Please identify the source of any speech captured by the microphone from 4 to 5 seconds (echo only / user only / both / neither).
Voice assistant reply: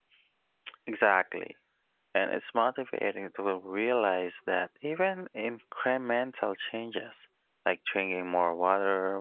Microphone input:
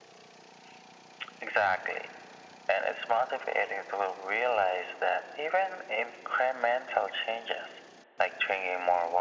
echo only